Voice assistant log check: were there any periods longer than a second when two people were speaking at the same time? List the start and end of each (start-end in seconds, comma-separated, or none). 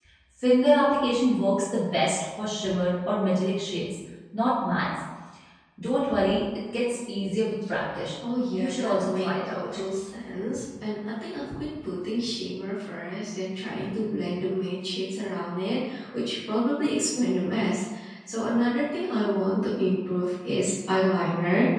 8.5-9.8